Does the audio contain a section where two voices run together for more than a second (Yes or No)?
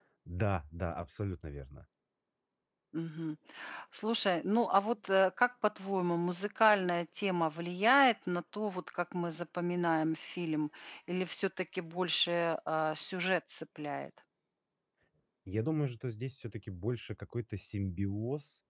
No